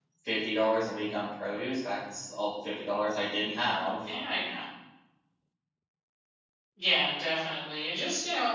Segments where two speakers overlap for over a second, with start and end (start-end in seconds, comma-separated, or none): none